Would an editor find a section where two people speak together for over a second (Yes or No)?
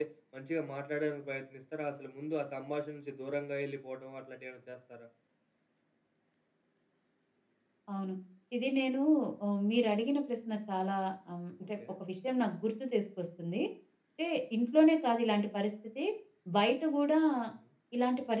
No